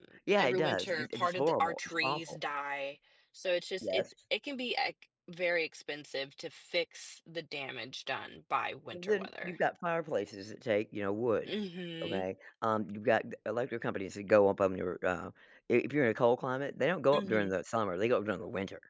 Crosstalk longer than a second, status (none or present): present